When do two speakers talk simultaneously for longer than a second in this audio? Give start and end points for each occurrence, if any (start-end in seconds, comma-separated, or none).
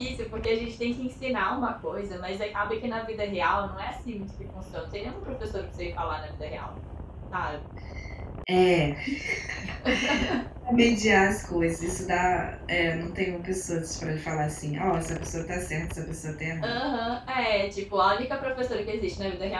none